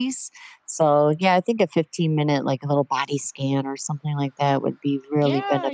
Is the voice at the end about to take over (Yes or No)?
Yes